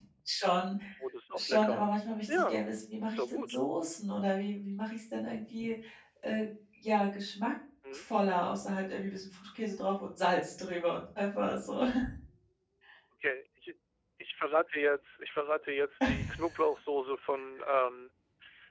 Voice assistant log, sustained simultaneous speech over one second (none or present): none